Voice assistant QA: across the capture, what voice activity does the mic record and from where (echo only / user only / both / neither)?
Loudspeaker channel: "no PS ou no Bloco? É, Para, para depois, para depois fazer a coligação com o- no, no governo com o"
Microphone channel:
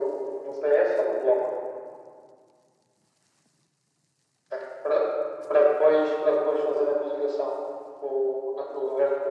echo only